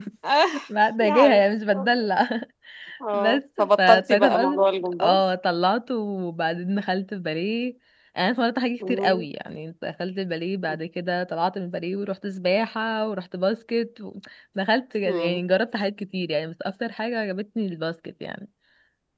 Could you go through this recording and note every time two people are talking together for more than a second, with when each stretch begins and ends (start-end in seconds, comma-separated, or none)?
3.1-4.6